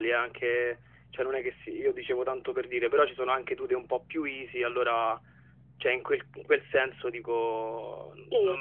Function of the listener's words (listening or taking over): listening